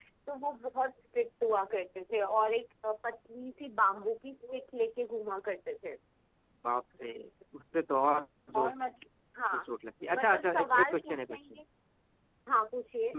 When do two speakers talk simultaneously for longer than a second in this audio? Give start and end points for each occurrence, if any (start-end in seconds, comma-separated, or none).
10.1-11.6